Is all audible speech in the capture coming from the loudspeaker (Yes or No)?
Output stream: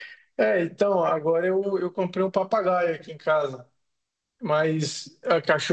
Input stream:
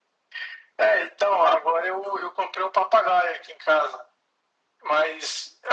Yes